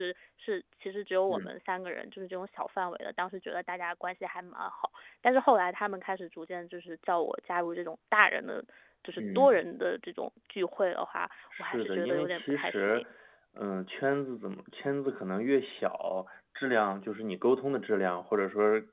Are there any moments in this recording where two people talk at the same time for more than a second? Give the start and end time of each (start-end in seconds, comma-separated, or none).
11.6-13.0